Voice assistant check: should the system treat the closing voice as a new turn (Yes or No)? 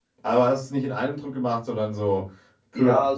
Yes